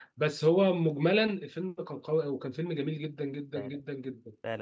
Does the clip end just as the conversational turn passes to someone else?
Yes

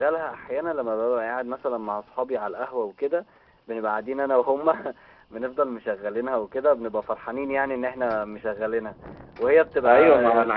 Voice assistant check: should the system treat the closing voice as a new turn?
Yes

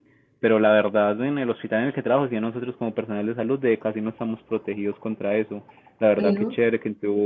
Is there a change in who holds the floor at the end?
No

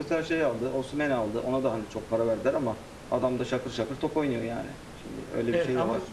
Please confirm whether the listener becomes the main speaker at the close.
Yes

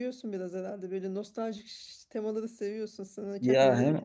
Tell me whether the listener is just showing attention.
No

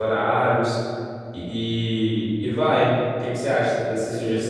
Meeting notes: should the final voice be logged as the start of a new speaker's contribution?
Yes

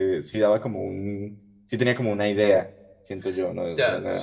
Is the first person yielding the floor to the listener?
Yes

